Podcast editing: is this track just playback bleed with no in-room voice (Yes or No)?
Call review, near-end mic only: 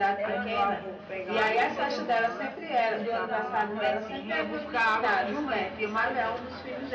No